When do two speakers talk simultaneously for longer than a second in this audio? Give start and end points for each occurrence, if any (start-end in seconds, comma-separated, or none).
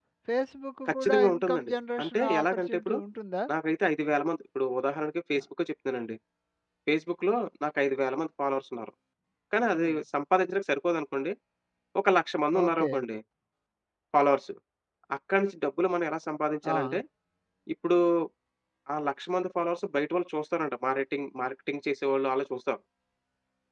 0.9-3.0